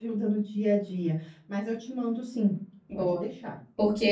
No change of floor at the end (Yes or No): No